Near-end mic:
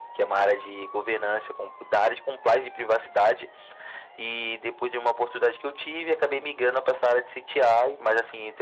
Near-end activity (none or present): none